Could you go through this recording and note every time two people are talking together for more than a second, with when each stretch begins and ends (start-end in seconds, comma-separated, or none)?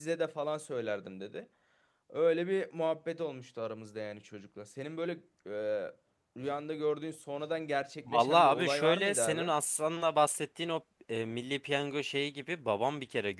8.1-9.5